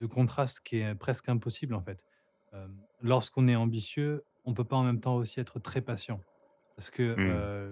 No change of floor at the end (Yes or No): Yes